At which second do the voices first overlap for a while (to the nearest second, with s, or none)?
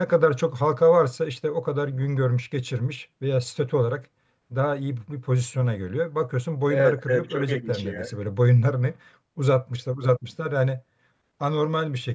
7 s